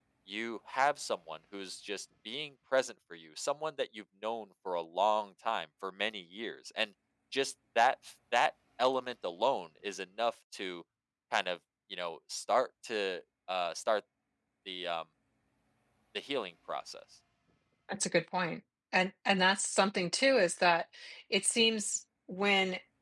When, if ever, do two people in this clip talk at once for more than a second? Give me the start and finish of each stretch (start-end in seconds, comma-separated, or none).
none